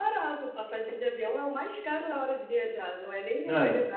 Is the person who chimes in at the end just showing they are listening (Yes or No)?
Yes